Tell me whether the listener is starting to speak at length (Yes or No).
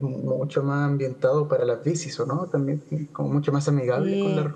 No